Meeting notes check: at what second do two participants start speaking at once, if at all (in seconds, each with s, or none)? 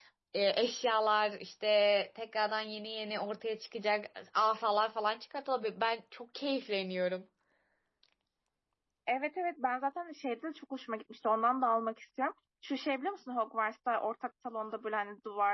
none